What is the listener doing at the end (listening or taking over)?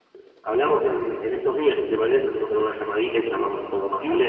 taking over